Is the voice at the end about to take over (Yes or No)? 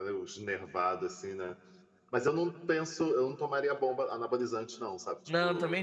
Yes